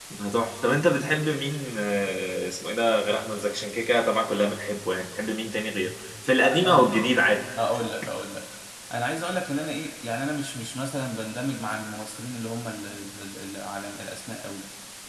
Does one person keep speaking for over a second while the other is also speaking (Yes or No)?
No